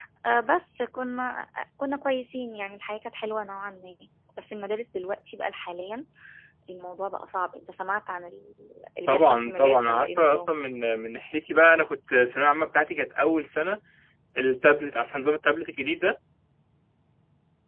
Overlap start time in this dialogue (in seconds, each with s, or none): 9.1 s